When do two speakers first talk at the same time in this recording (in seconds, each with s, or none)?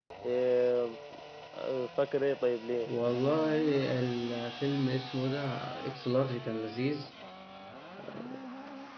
none